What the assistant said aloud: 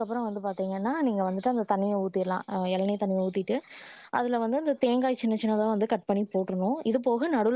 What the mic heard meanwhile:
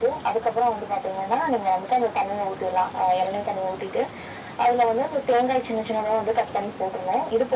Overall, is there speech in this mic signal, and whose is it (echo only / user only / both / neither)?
echo only